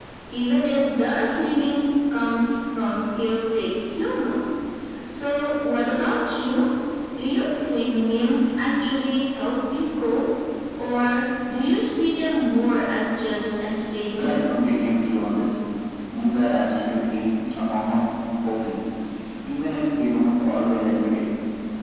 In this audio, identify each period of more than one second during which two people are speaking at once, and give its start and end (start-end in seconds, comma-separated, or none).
none